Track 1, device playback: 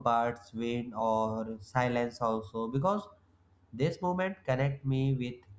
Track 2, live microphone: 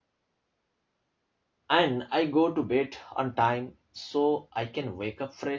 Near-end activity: present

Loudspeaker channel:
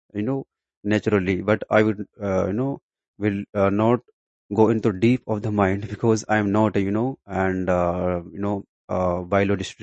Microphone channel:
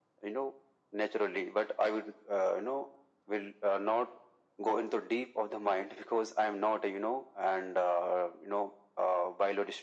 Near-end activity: none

